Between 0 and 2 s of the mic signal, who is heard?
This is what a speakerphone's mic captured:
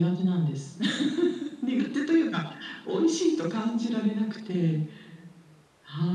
echo only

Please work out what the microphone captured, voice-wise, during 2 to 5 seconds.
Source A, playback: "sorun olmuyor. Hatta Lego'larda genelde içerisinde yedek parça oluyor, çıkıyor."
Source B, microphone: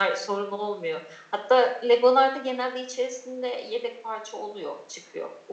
echo only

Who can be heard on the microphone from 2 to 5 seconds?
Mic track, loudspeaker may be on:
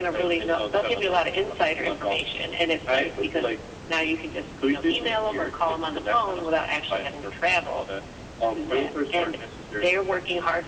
echo only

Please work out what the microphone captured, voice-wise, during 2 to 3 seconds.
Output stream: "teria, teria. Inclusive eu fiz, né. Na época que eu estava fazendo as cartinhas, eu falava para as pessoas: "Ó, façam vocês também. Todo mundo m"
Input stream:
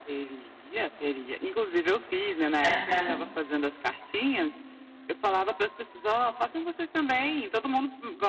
both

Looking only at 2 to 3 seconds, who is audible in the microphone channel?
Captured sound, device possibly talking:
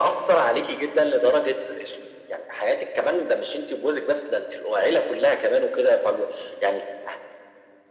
echo only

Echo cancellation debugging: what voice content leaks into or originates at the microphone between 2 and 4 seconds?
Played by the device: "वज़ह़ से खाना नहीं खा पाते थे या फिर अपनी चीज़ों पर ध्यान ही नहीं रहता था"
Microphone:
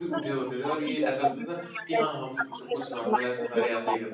both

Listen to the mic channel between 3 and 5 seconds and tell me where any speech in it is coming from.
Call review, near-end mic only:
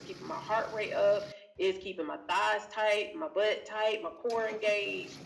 echo only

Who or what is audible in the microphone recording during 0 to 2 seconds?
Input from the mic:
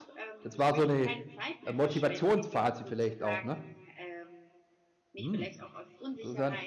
both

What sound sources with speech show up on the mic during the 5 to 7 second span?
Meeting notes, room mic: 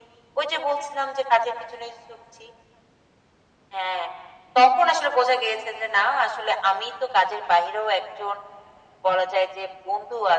echo only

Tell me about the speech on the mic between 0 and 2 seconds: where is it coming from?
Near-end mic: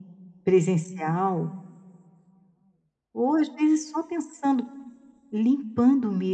echo only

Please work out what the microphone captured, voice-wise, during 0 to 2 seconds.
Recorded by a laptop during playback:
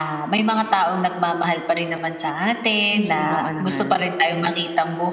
echo only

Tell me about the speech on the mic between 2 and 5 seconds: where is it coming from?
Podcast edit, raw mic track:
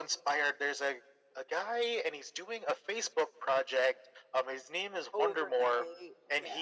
echo only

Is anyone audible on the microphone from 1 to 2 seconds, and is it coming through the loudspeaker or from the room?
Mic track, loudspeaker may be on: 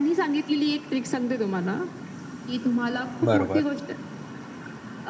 echo only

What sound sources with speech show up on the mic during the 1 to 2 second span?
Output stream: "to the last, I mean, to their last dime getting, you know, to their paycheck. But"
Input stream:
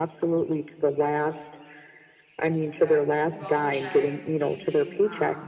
echo only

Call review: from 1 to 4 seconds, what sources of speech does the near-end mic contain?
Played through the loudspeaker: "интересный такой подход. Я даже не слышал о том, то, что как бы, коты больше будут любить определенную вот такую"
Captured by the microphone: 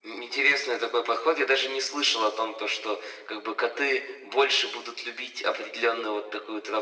echo only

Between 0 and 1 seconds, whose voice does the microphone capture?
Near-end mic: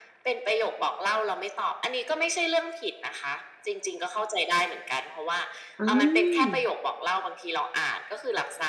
echo only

